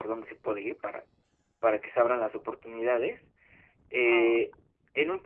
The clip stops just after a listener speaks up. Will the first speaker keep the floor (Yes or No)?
Yes